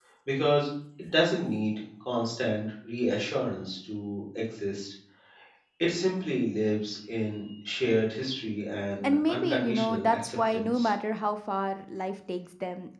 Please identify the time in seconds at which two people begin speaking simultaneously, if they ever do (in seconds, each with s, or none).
9.0 s